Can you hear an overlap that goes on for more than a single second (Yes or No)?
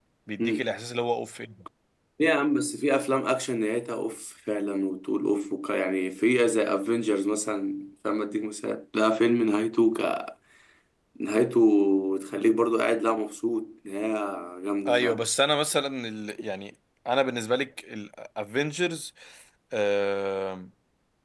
No